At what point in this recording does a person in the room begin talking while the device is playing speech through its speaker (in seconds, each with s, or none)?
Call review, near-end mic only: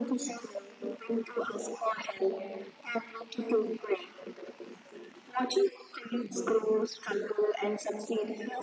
none